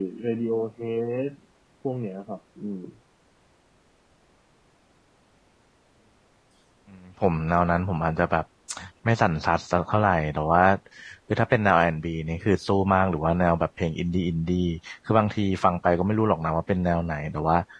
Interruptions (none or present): none